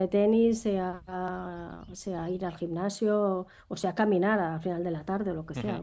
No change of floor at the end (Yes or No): No